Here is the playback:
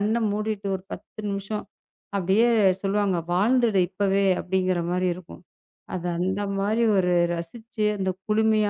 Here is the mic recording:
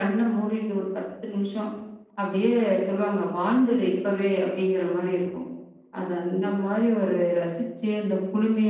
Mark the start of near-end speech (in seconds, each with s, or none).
none